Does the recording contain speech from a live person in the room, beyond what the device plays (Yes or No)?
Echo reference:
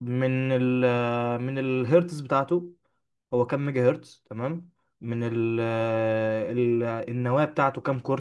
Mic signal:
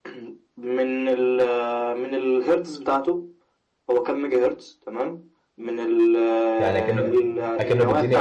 Yes